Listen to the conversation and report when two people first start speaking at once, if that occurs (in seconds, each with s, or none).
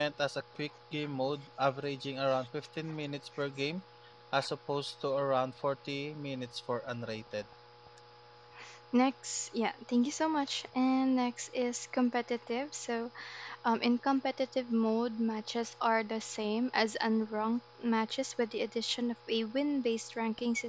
none